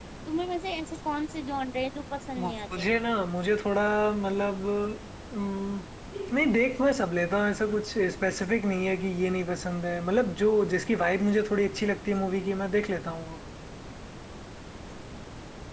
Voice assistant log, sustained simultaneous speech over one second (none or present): none